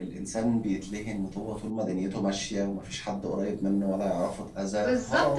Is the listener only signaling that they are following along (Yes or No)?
No